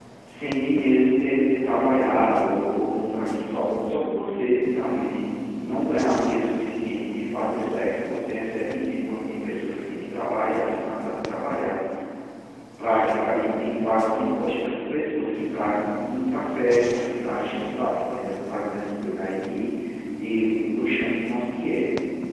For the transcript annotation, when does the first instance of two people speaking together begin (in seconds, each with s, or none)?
none